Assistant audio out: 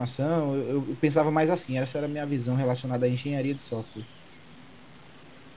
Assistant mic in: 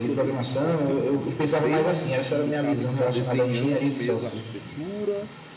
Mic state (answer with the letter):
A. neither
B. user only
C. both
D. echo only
C